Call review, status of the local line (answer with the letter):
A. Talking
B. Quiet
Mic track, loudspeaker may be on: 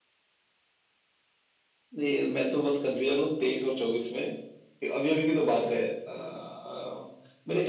B